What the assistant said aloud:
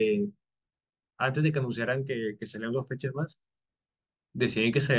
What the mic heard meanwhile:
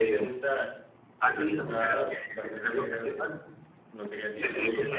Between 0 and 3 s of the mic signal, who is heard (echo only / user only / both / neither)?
both